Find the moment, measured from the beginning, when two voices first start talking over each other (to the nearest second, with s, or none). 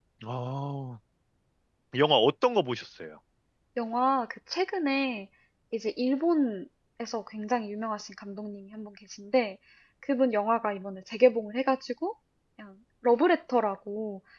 none